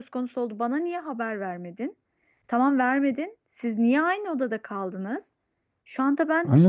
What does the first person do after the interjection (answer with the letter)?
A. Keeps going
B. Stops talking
B